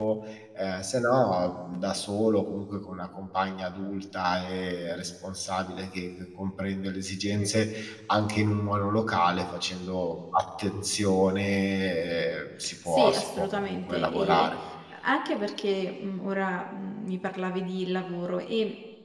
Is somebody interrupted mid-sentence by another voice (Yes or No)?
Yes